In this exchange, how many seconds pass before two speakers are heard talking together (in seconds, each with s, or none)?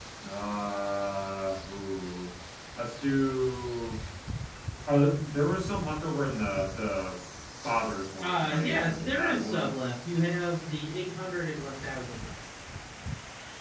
8.2 s